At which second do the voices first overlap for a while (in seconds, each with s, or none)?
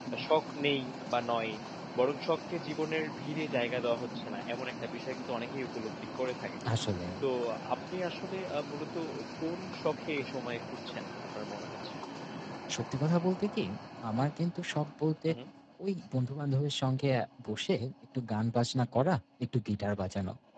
none